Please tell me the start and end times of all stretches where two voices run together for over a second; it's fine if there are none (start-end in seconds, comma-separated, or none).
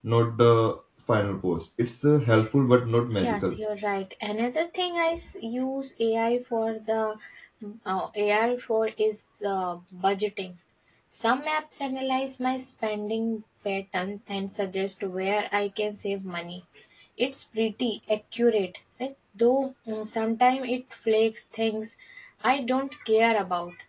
none